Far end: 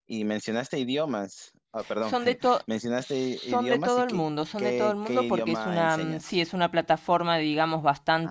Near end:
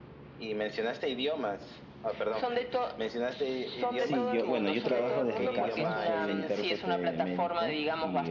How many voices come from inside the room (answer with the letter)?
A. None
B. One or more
B